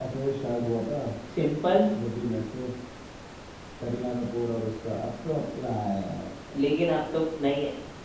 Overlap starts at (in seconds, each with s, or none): none